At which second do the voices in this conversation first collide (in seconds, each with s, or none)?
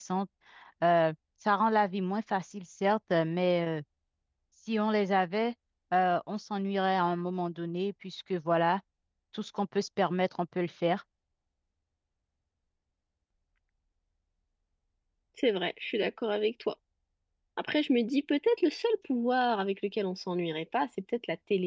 none